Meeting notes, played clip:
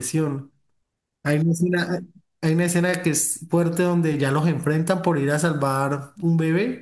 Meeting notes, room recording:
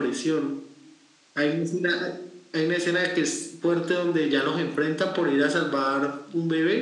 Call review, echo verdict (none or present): present